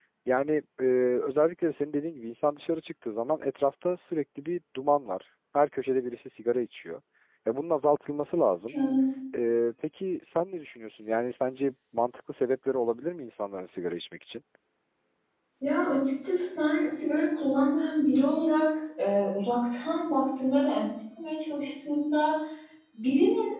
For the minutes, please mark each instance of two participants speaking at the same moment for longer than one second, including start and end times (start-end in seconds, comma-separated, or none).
none